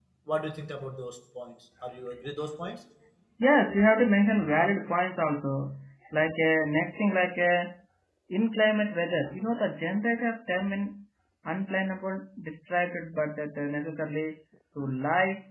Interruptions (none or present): none